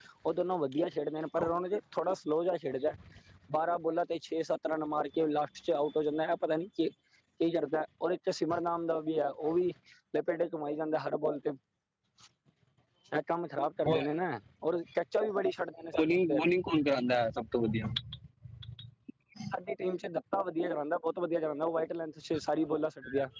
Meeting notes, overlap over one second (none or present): none